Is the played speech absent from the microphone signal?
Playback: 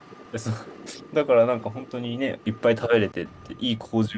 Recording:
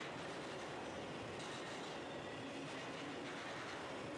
Yes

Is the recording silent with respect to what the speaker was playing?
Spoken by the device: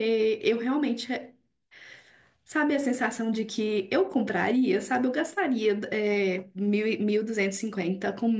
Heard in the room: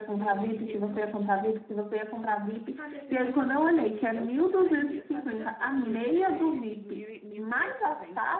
No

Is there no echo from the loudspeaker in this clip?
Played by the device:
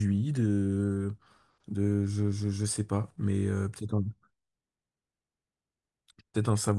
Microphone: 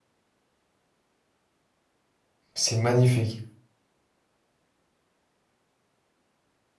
Yes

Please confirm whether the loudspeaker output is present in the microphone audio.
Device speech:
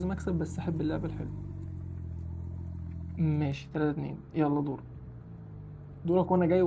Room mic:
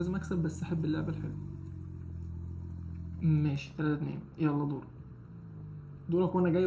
Yes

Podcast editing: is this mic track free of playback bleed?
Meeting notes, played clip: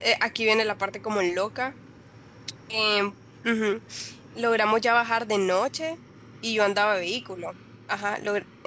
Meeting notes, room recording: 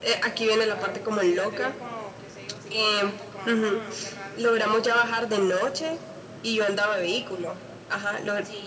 No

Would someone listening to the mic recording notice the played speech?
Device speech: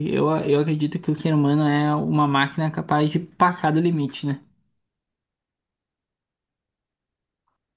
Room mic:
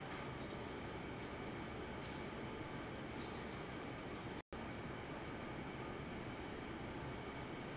No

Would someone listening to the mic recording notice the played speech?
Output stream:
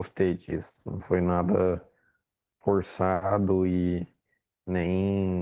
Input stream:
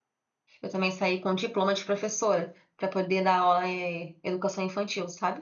No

